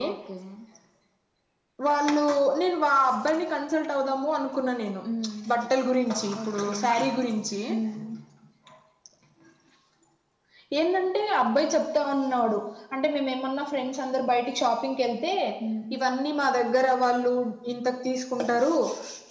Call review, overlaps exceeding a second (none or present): none